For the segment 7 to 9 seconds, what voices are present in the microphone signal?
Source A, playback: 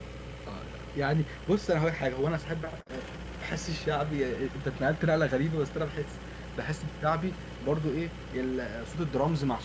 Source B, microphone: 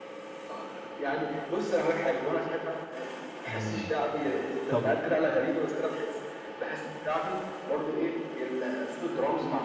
echo only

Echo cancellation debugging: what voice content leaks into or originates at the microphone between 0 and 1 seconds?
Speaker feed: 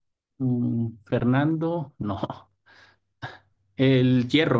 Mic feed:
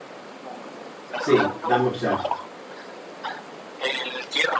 echo only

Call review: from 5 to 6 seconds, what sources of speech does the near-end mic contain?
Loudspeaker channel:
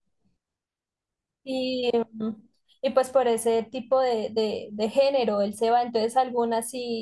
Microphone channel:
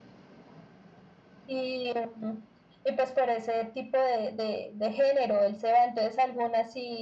echo only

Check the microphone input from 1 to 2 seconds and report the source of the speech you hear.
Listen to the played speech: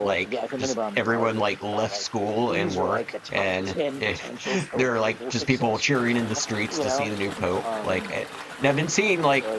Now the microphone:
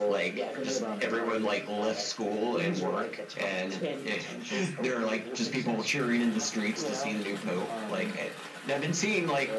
echo only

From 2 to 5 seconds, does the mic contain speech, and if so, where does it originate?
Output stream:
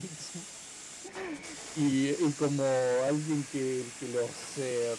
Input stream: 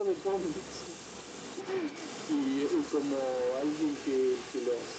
echo only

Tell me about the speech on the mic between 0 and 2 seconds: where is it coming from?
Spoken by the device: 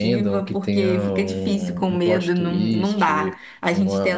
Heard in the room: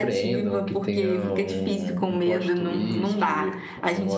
echo only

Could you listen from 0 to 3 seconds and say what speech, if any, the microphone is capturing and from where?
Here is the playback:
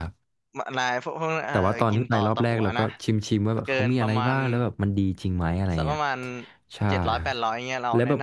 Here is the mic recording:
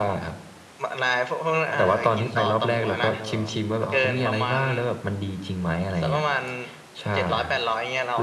both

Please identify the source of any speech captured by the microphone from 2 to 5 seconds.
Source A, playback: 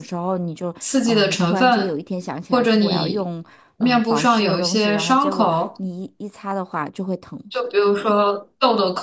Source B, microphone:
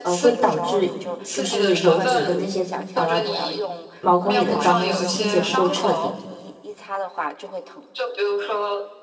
both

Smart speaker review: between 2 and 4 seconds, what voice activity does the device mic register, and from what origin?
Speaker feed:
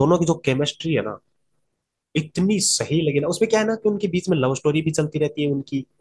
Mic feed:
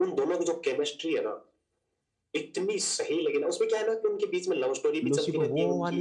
echo only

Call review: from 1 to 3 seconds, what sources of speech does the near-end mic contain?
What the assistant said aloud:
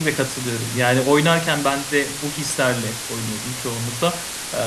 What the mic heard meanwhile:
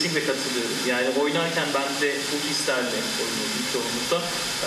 echo only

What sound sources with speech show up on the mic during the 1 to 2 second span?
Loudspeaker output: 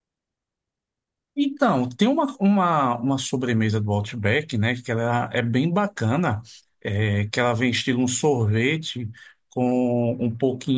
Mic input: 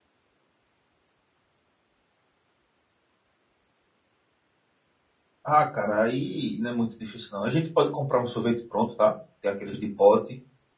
neither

